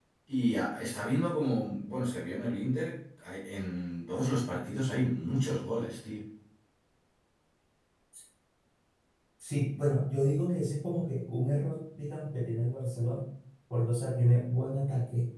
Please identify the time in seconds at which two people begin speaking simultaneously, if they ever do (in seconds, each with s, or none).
none